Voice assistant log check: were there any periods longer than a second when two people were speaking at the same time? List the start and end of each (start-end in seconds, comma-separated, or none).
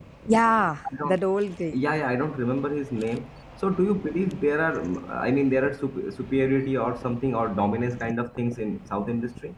none